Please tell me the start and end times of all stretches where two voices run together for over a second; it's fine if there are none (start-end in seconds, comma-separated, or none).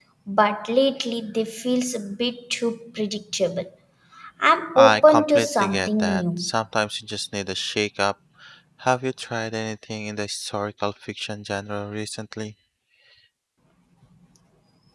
4.8-6.5